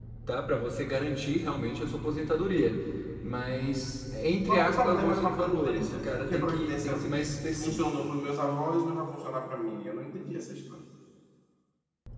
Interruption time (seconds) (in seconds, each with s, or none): 4.5 s